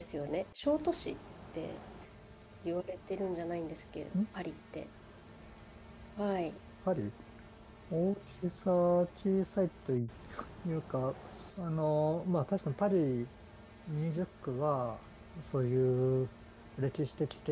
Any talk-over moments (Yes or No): No